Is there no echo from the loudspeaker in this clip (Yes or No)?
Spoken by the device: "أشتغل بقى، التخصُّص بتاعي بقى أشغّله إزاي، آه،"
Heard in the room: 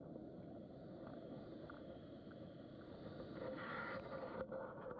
Yes